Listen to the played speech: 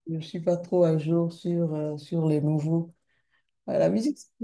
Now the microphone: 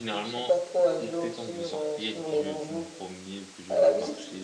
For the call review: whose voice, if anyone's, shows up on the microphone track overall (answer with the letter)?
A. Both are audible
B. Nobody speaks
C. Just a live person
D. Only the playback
A